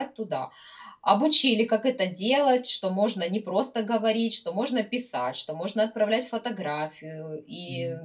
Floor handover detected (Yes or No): Yes